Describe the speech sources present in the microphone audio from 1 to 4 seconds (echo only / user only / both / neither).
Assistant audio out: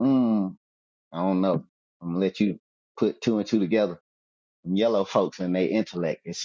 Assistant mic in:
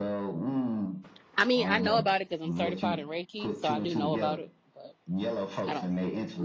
both